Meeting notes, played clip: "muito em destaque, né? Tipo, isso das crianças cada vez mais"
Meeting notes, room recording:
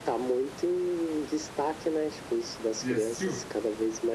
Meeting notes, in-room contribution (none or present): present